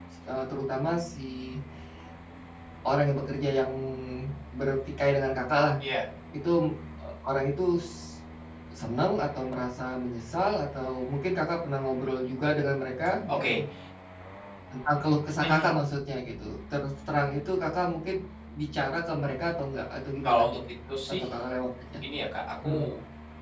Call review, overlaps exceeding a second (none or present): none